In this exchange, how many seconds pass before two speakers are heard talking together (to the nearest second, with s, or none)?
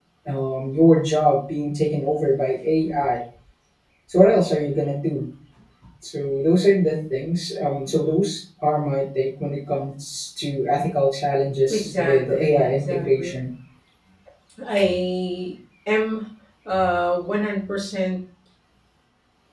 12 s